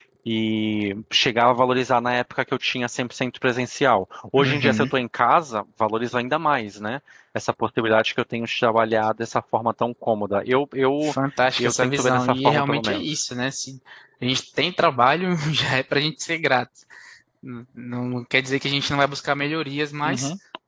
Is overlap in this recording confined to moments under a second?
No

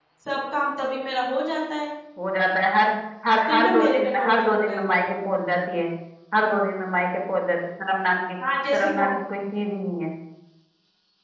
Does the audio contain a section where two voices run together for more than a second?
Yes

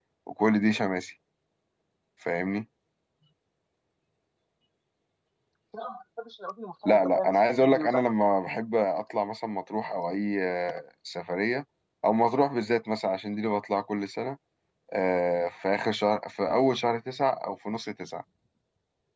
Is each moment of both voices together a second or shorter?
No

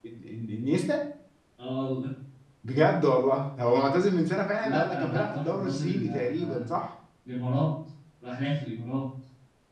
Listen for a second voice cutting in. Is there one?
Yes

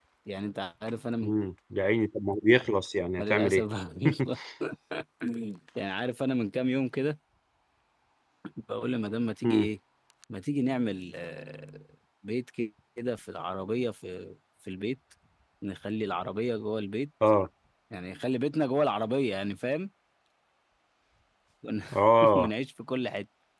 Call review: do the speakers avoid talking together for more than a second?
Yes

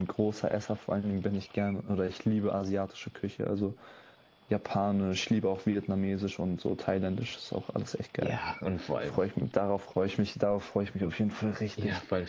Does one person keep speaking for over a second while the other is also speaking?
No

